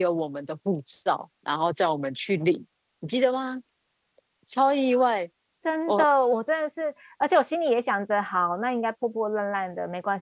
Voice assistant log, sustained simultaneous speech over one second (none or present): none